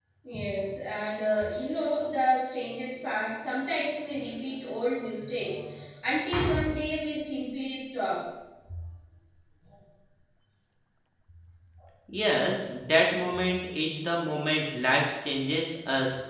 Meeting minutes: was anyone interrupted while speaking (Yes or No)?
No